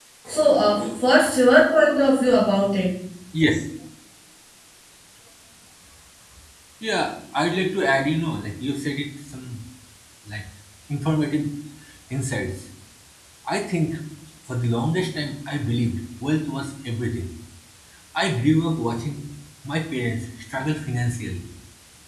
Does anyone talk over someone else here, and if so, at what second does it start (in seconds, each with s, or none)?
none